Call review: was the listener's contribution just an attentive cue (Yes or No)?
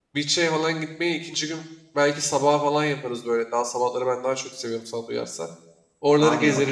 No